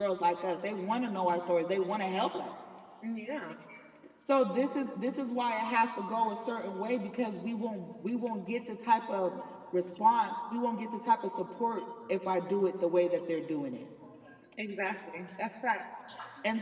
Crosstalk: none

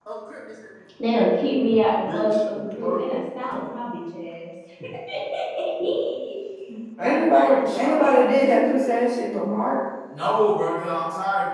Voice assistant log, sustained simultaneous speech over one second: present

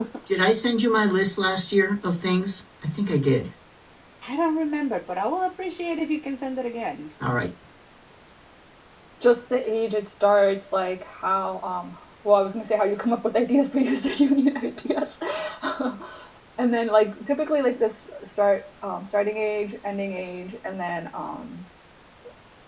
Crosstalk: none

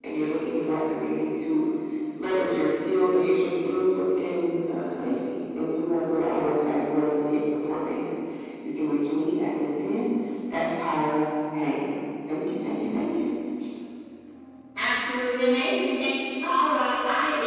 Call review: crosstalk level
none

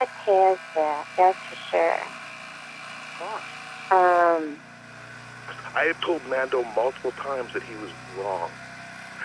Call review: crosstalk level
none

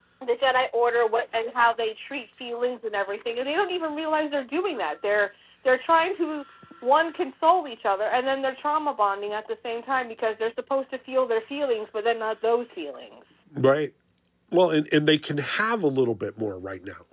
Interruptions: none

